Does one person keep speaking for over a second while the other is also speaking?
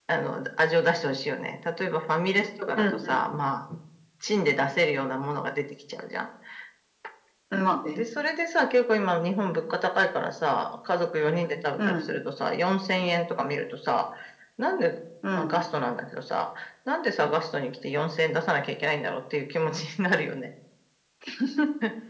No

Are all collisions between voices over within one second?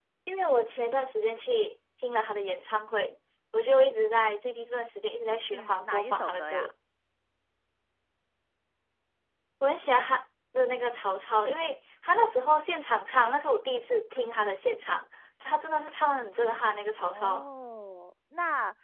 No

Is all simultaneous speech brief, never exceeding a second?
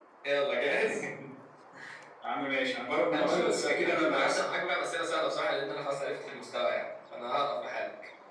No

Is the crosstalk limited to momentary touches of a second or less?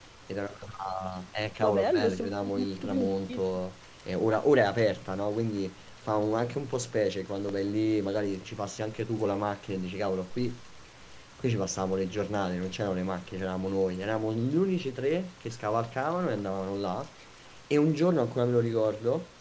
No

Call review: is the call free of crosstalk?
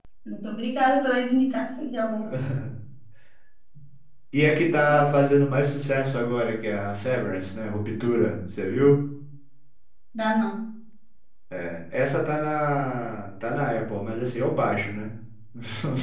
Yes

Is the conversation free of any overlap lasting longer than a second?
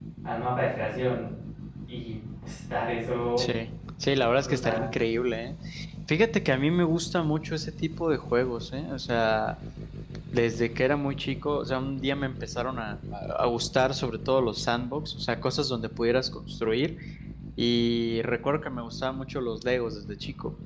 Yes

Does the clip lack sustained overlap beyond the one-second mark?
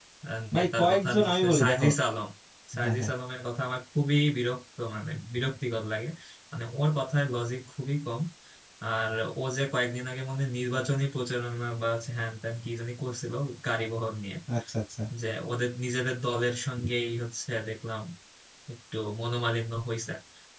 No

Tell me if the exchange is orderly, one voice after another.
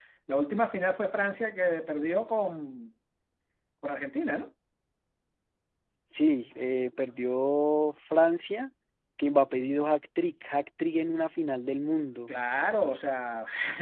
Yes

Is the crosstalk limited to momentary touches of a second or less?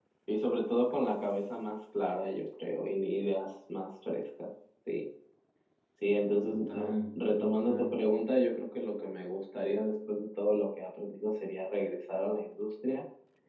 No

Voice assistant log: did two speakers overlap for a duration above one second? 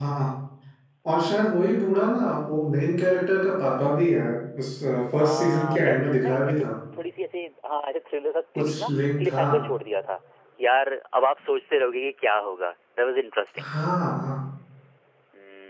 Yes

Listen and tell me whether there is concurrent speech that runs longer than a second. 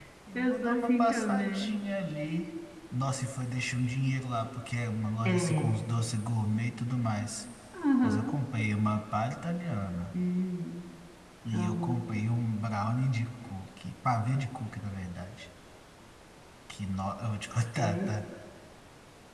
Yes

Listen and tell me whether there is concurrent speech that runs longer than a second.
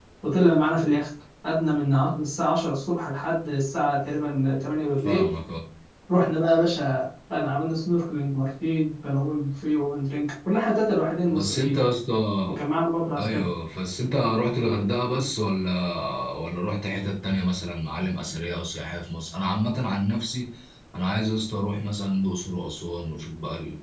No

